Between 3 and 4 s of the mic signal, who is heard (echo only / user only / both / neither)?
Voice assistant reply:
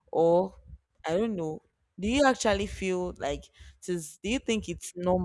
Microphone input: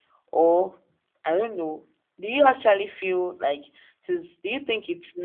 echo only